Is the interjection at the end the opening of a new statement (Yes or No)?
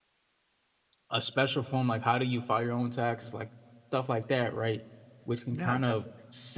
No